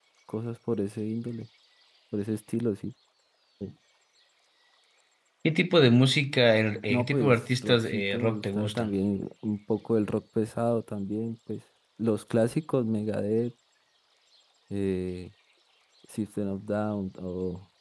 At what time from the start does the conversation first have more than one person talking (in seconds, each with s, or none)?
6.9 s